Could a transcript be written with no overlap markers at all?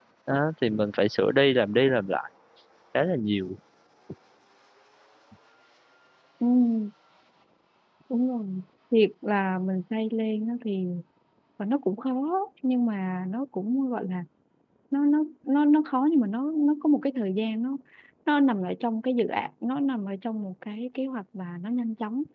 Yes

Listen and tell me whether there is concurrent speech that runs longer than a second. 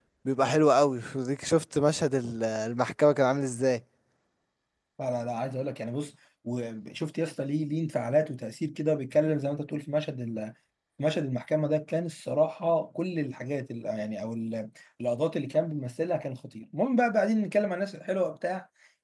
No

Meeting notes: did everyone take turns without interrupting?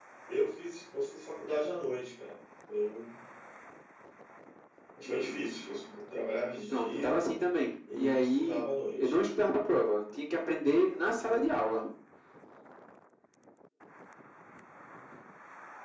No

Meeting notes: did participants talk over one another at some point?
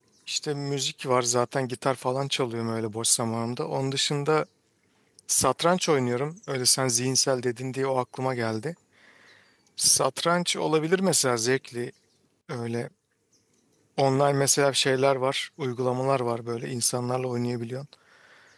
No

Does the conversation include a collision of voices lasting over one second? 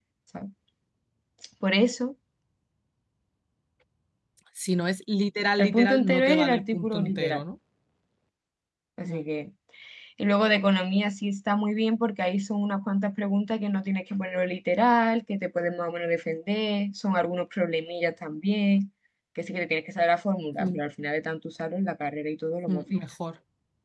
Yes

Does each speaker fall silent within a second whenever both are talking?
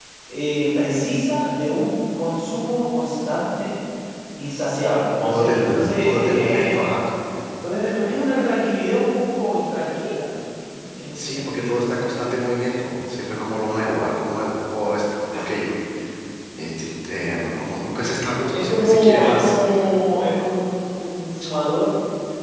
No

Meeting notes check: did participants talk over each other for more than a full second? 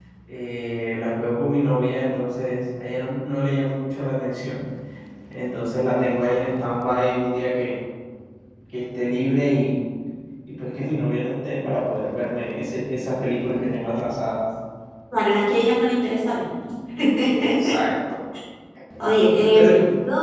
No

